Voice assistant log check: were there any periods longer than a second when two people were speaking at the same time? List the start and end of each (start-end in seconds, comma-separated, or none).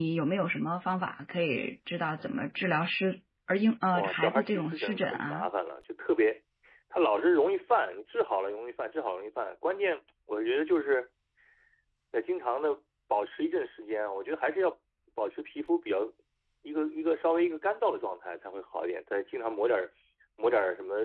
3.9-5.5